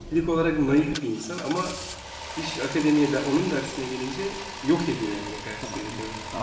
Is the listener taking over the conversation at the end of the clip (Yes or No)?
Yes